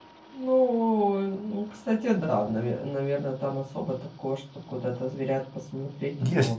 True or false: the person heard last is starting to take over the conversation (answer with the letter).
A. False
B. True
B